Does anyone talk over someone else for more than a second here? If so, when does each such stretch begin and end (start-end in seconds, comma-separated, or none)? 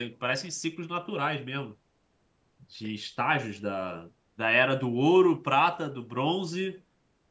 none